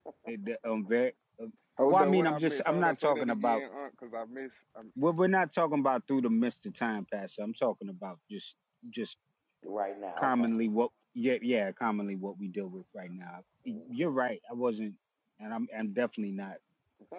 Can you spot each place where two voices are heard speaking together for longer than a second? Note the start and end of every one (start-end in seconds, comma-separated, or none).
1.9-3.6